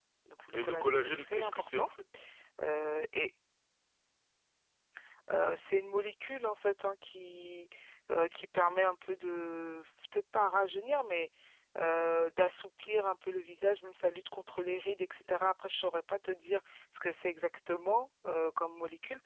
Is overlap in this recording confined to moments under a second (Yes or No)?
No